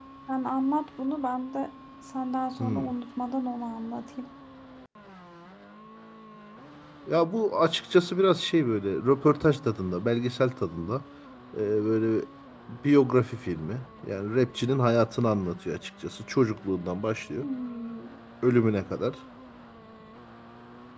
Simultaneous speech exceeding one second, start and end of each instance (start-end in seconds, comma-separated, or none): none